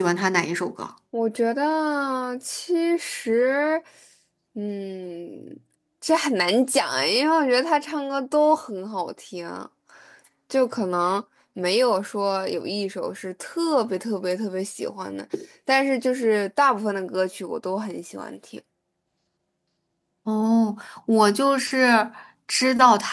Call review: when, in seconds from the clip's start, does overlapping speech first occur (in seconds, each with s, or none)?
none